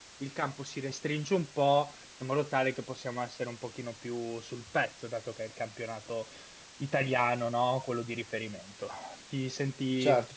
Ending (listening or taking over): listening